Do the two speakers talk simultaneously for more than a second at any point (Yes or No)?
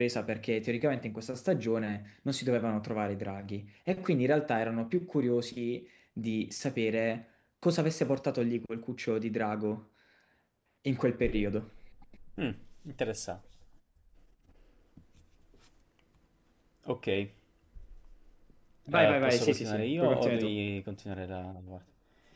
Yes